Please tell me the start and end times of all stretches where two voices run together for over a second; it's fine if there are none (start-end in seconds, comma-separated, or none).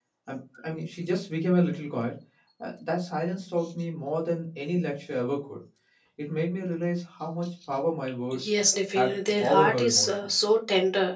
8.9-10.3